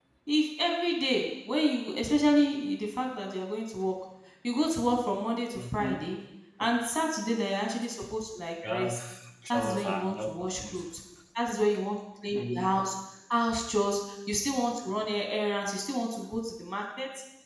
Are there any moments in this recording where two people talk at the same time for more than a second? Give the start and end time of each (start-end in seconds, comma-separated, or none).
9.5-10.8